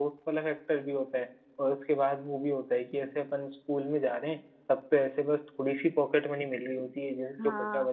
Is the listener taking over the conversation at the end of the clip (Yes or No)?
No